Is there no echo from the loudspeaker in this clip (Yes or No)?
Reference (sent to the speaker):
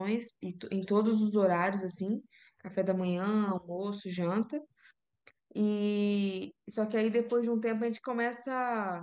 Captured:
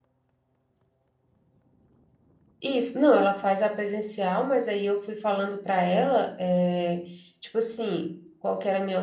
Yes